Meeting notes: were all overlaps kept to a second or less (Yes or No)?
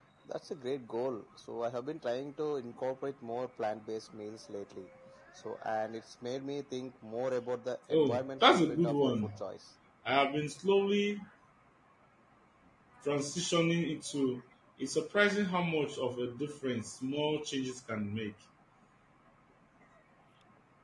No